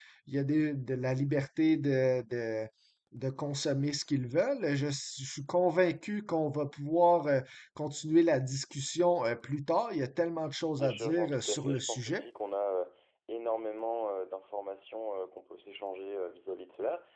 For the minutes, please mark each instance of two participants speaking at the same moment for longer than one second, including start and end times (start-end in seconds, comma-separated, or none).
10.8-12.2